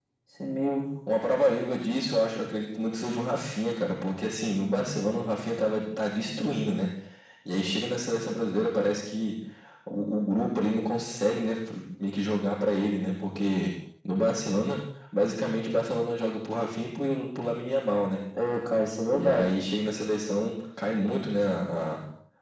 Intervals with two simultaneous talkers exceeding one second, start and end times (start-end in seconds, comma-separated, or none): none